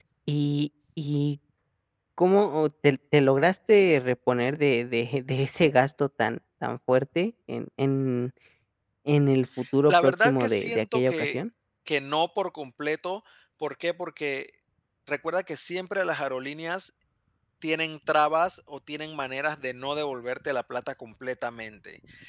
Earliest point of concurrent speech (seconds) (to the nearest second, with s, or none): 10 s